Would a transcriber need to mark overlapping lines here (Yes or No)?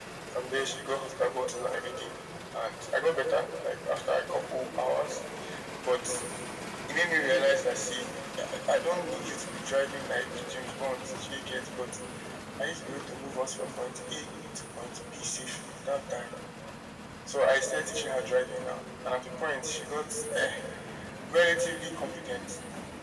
No